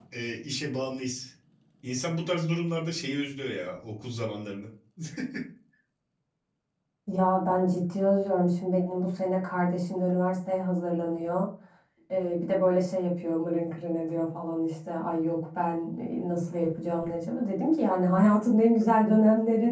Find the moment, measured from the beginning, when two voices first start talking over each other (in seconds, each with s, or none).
none